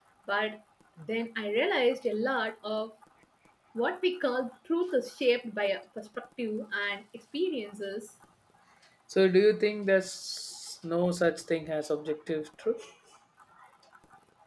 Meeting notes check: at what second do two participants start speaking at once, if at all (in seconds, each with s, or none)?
none